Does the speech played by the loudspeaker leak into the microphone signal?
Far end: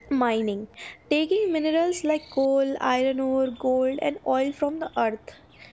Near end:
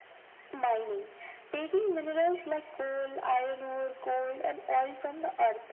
Yes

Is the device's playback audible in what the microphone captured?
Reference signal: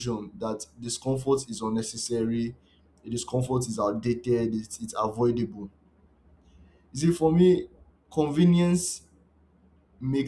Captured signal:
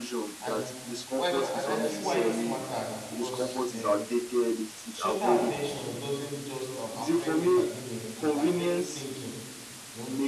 Yes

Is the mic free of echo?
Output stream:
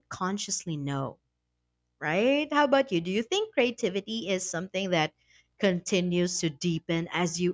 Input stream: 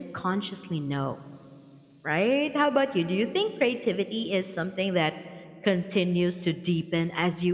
No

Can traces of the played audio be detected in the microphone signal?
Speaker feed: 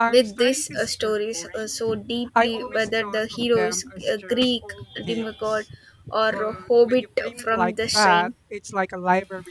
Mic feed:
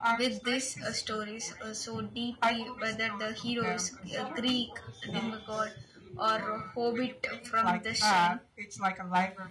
Yes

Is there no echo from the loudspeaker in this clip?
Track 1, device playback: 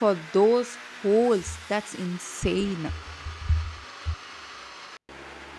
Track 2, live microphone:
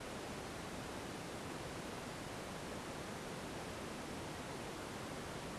Yes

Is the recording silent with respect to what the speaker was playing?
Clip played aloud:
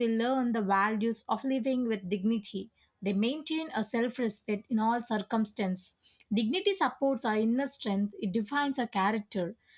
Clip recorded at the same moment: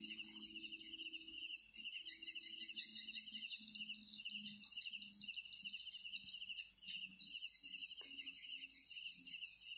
Yes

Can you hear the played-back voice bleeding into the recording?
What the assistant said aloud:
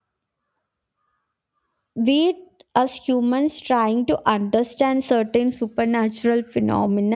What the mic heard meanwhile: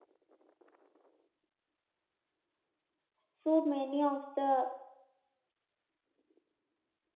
No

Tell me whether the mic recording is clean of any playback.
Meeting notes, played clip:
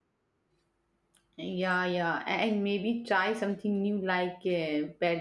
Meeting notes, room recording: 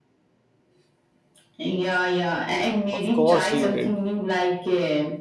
No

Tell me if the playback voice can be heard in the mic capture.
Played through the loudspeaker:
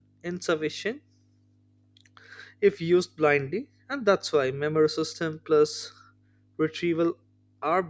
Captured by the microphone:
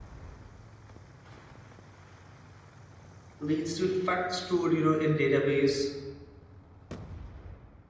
No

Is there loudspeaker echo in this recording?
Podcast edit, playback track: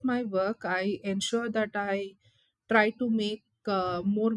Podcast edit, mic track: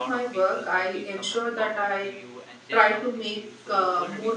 Yes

